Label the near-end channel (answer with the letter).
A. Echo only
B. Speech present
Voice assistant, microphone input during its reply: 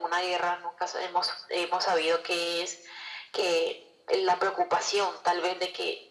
A